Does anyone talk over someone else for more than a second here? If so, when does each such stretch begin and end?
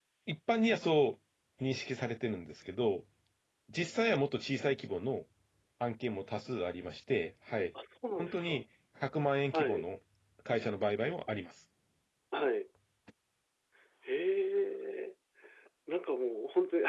none

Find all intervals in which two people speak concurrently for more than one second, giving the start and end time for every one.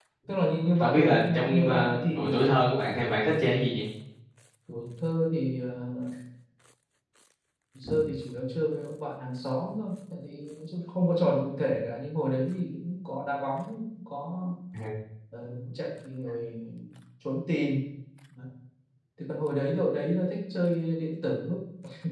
0.8-2.3

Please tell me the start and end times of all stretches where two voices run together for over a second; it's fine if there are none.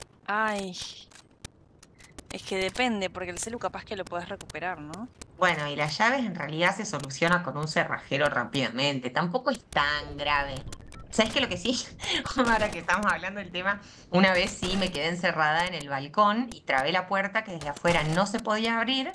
none

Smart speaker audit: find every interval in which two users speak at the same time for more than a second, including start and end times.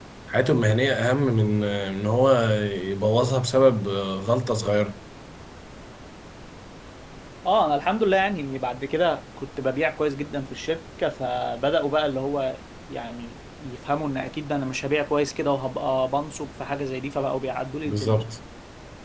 none

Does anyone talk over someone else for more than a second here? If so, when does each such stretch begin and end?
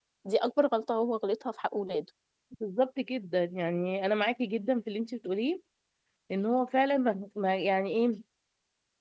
none

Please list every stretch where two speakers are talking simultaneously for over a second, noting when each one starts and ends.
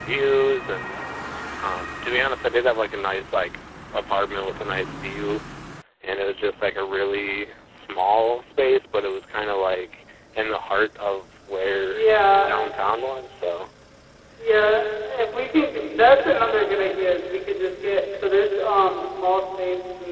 none

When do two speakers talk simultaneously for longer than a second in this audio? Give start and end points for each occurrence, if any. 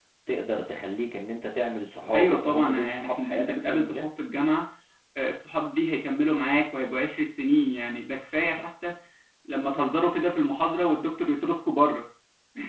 2.1-4.1

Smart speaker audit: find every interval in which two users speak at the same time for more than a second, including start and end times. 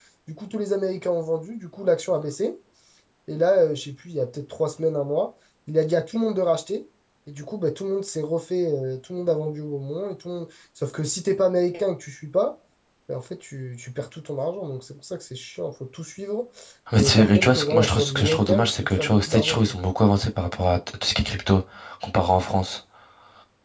17.0-19.8

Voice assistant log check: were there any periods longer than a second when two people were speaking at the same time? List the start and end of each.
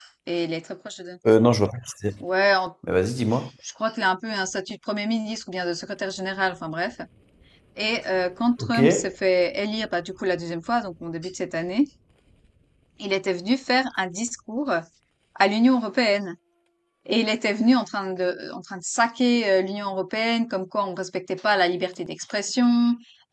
none

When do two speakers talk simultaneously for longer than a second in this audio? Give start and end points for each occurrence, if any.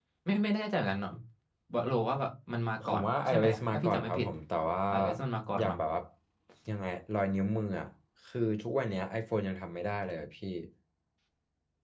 2.8-4.3

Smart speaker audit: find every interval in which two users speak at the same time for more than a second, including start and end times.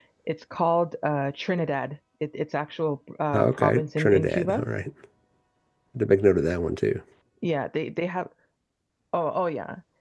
3.3-4.7

